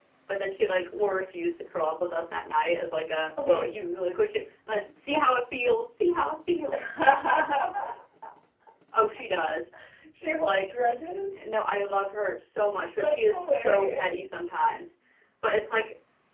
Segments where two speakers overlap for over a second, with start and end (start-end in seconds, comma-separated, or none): 13.0-14.2